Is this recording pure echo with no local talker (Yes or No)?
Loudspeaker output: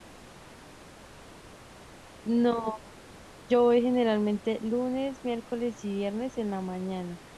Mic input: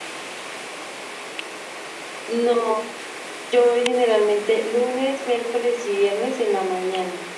Yes